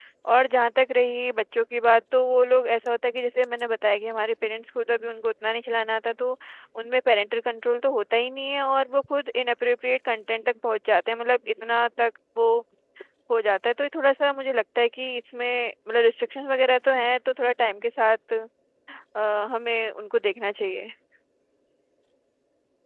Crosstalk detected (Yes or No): No